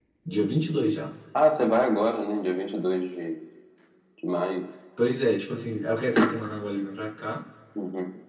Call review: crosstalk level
none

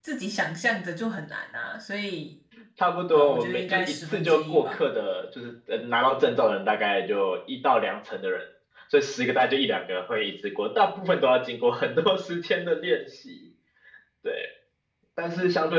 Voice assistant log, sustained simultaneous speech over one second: present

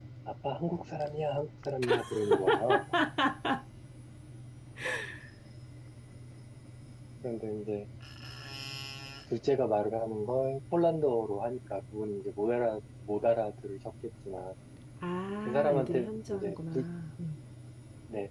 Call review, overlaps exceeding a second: present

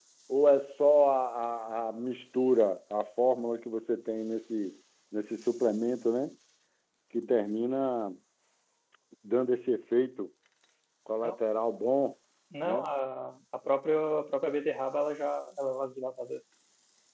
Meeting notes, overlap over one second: none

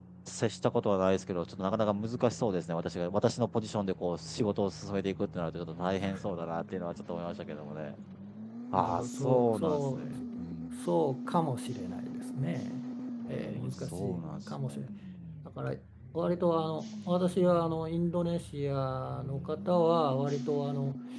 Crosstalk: present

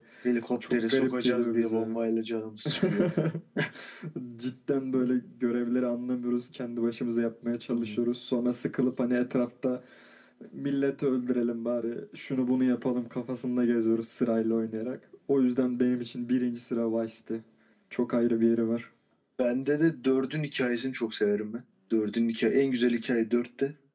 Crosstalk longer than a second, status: present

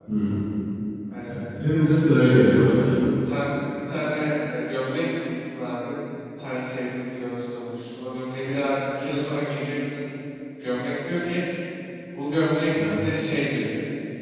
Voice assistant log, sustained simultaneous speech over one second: none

